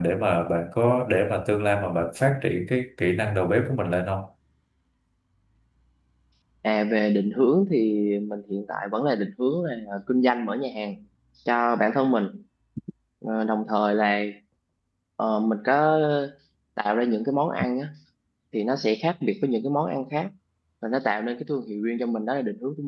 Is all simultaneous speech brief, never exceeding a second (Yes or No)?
Yes